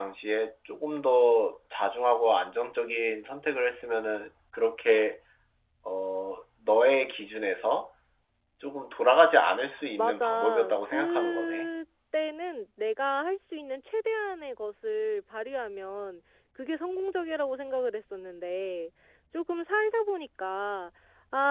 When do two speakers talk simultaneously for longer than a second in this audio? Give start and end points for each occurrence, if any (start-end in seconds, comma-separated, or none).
10.0-11.7